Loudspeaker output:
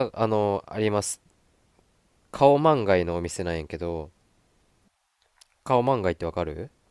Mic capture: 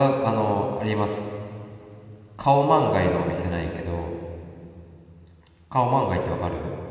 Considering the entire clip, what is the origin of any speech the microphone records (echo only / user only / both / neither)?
echo only